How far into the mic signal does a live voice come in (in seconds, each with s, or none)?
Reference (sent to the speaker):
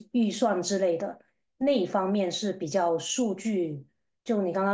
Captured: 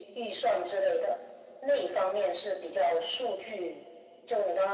none